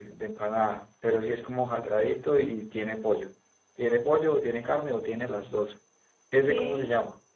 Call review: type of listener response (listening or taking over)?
taking over